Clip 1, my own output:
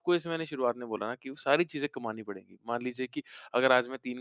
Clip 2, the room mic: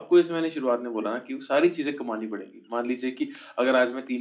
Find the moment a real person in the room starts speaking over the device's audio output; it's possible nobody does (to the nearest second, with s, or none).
none